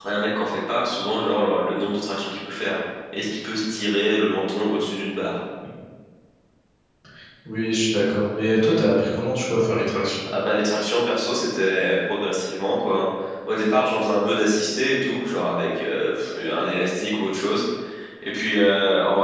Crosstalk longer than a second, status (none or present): none